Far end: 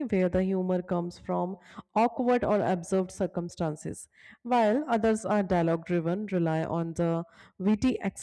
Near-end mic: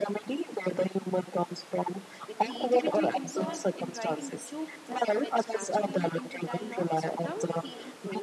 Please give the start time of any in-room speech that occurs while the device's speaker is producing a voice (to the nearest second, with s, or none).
2 s